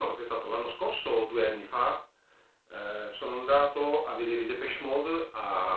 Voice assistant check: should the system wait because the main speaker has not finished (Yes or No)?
Yes